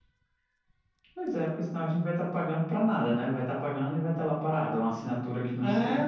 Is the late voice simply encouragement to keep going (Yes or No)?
No